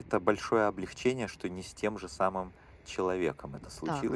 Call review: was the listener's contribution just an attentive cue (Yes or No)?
No